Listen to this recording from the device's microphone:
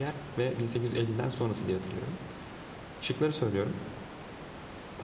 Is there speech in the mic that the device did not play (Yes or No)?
Yes